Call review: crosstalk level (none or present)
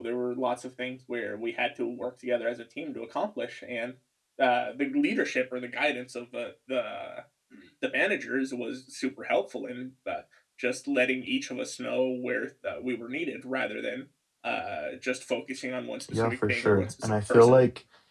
present